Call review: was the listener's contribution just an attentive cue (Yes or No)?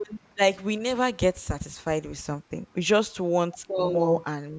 Yes